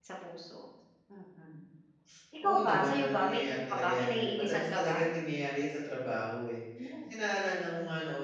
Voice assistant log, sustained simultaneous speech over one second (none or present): present